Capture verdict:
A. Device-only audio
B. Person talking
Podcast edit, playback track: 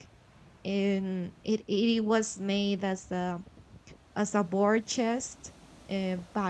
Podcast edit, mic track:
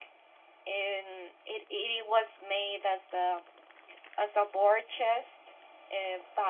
A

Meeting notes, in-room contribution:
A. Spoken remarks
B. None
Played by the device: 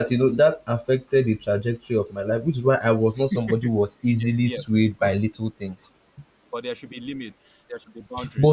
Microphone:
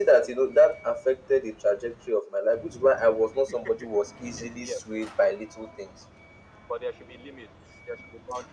B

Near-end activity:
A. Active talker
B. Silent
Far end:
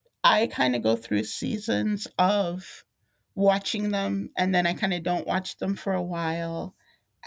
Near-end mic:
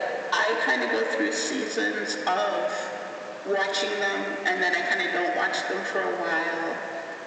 B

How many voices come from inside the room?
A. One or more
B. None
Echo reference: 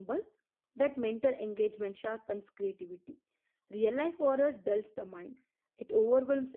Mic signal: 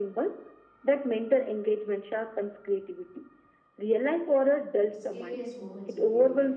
A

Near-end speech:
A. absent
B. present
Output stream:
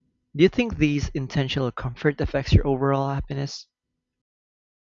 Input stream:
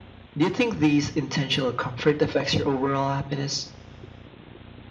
A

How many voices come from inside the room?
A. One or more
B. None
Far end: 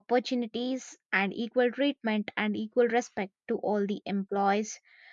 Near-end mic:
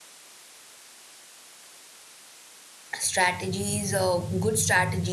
A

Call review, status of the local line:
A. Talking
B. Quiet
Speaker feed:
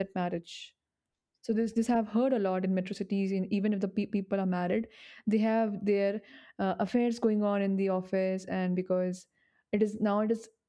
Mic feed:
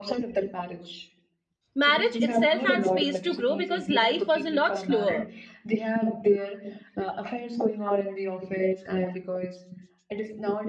A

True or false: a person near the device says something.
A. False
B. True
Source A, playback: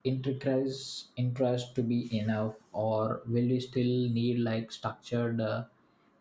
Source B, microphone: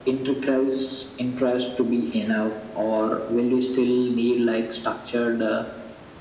A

